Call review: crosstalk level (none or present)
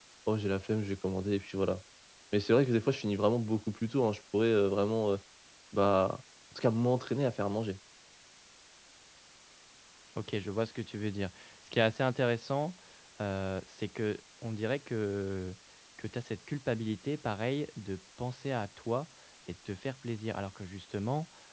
none